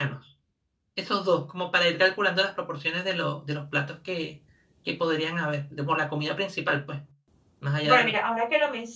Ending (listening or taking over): taking over